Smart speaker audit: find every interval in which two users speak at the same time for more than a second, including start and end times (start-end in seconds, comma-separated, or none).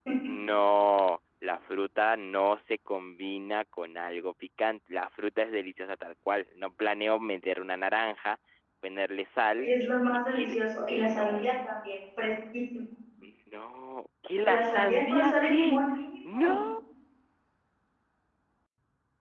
10.3-11.5, 14.4-15.8